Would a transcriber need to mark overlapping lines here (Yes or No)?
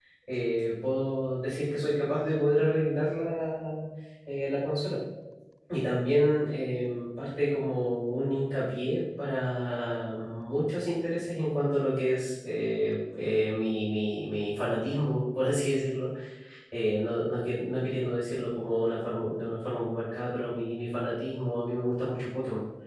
No